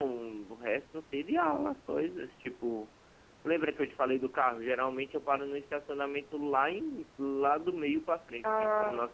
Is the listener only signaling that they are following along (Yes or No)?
Yes